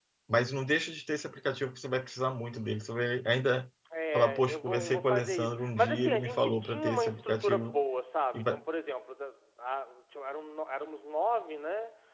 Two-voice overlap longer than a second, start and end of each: 4.2-7.8

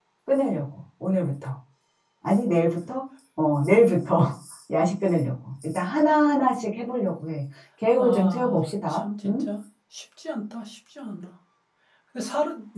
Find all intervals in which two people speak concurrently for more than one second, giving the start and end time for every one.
8.0-9.4

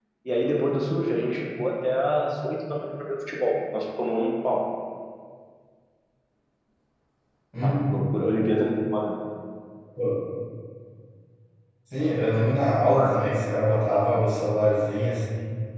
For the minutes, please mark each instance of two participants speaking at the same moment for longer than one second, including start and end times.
none

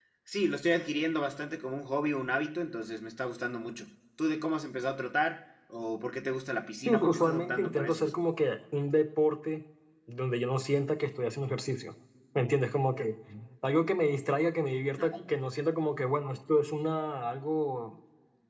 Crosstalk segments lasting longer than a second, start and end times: 6.8-8.1

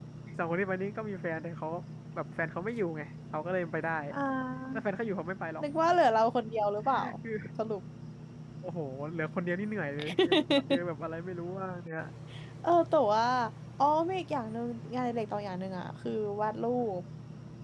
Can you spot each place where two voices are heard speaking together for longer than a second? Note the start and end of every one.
none

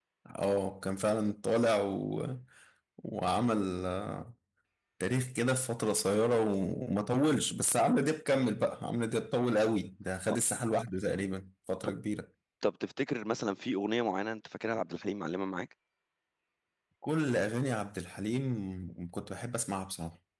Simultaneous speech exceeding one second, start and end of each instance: none

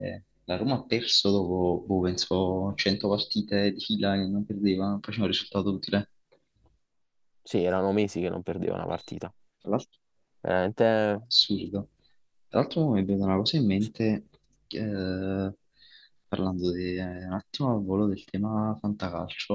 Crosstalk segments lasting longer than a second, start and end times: none

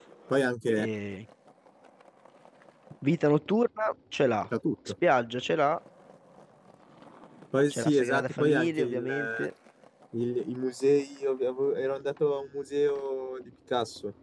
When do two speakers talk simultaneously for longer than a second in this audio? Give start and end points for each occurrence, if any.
7.7-9.5

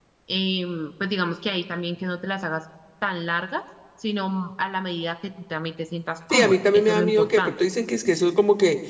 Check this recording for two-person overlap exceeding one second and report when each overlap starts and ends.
6.3-7.5

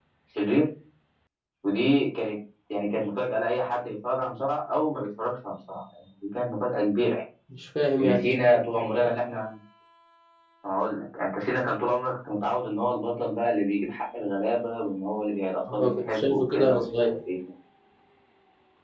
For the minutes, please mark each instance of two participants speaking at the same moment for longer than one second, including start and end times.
15.7-17.2

